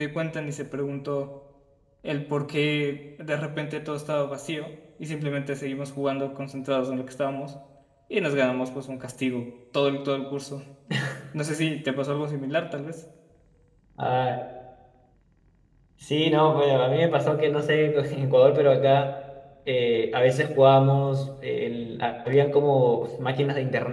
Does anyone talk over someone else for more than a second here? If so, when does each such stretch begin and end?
none

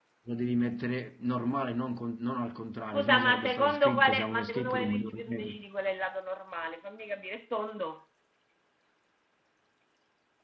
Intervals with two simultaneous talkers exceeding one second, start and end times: 2.9-5.5

